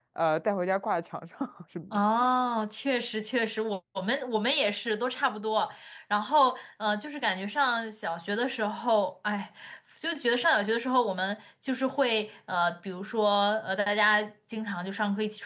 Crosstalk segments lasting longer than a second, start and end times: none

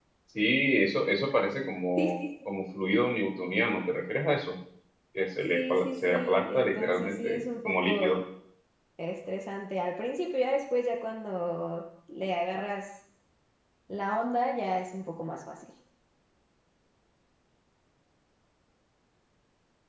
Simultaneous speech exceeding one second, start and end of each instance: 5.5-8.2

